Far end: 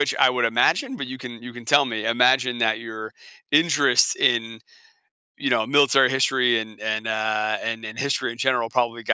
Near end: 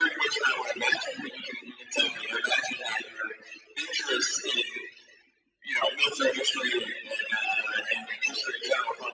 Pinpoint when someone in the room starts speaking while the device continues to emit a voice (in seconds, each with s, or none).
none